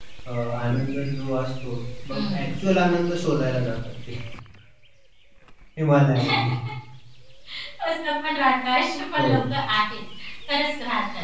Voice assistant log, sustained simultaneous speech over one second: none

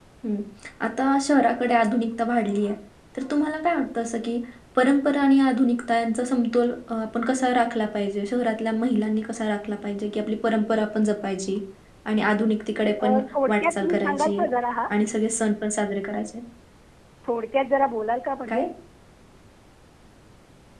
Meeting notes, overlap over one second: present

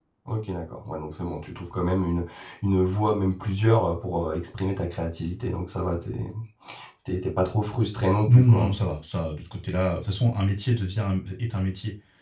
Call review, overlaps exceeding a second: none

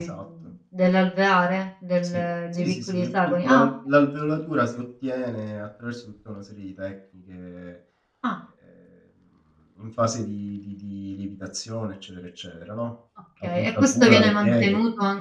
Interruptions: present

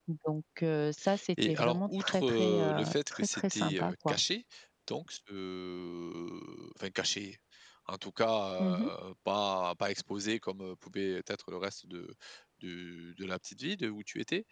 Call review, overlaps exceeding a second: present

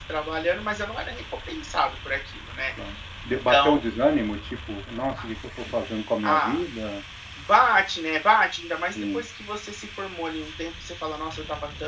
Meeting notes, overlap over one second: none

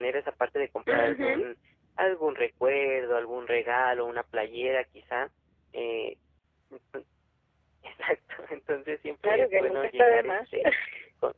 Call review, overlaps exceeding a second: present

